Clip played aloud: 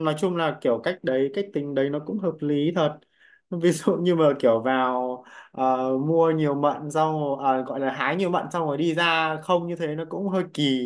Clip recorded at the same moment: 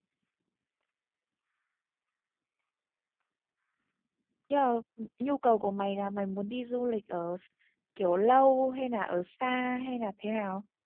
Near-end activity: present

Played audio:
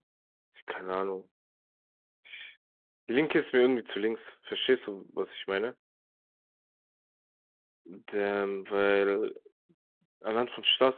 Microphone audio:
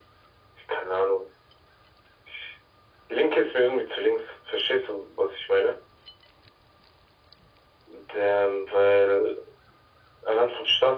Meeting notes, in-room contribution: none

